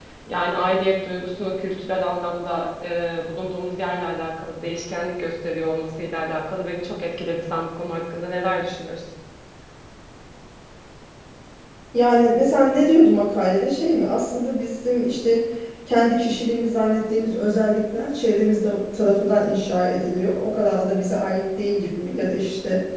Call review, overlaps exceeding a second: none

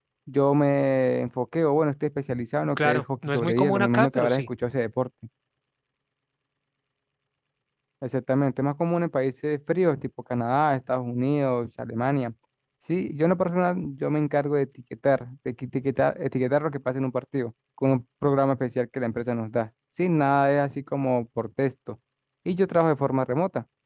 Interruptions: present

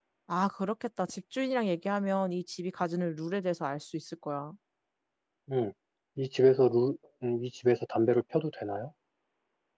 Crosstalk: none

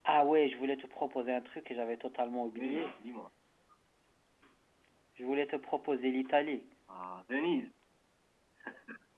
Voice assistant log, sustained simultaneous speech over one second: none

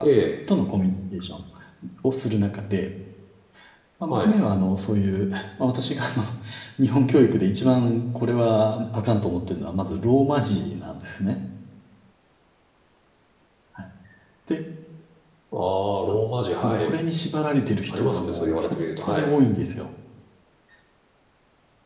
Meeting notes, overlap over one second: present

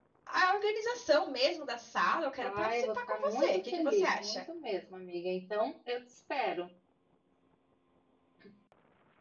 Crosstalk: present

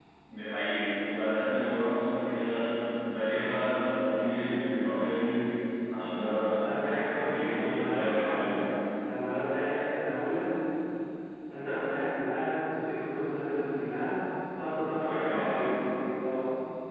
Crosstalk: present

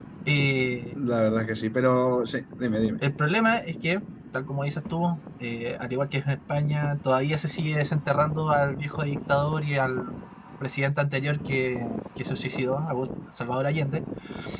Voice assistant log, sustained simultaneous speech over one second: none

